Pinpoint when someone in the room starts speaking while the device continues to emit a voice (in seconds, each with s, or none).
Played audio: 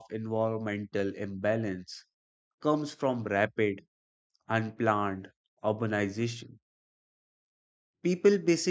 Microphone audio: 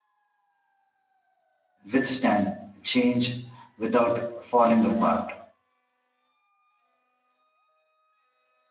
1.9 s